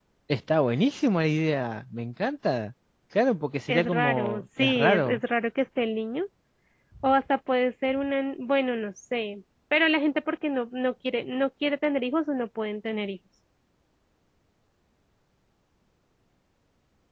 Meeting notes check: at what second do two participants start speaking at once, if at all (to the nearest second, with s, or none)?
4 s